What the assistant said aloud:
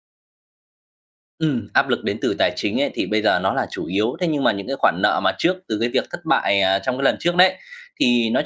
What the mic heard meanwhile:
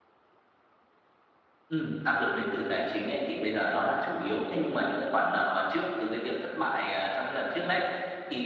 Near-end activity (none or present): none